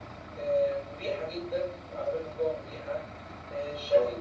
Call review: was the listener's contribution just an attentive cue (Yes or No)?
Yes